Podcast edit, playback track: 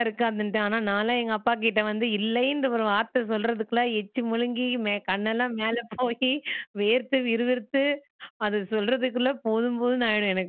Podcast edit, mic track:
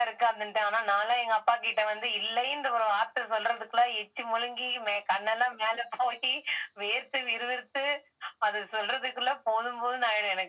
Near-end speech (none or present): none